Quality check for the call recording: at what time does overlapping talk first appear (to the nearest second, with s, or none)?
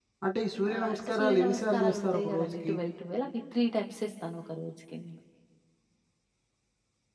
1 s